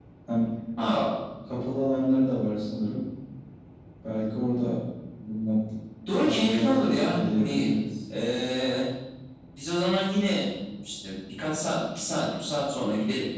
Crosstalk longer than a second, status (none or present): present